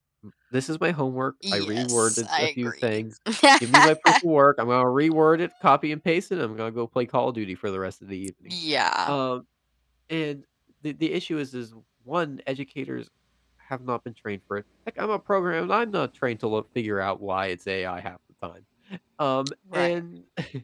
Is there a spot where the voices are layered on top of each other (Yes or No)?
Yes